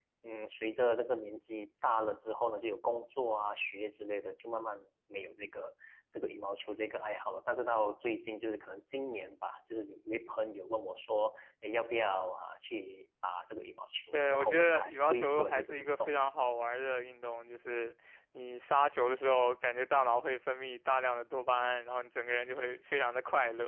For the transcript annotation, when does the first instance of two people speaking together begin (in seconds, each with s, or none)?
14.1 s